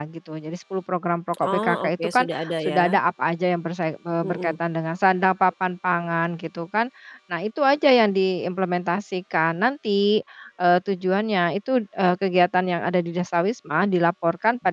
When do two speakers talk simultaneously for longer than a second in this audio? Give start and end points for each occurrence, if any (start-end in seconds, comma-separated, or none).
1.4-3.0